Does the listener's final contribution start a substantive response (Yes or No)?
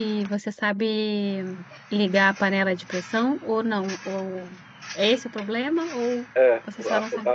Yes